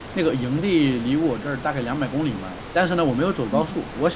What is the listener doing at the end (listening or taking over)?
listening